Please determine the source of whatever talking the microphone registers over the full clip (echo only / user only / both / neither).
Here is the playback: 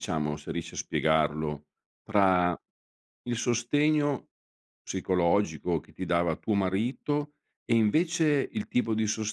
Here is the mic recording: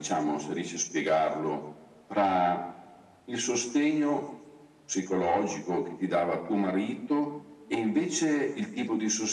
echo only